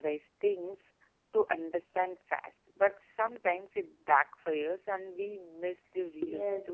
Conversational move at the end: taking over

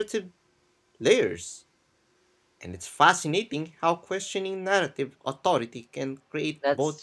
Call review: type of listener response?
taking over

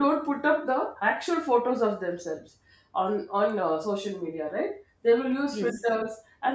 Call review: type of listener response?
listening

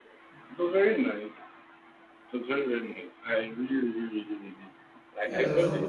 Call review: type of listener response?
taking over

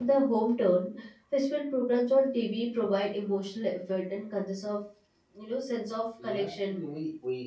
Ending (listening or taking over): taking over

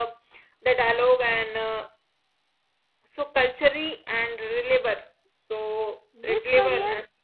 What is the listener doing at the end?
taking over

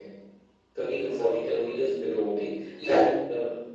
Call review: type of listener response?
listening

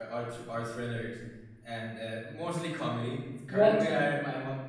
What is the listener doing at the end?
listening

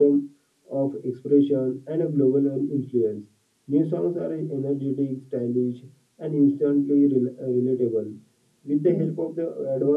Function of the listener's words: listening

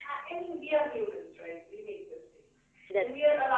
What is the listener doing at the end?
listening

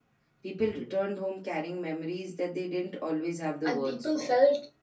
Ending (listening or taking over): taking over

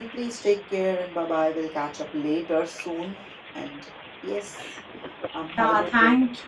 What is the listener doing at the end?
taking over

